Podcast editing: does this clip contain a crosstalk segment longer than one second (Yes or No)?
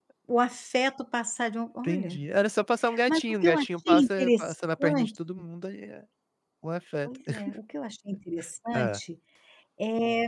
Yes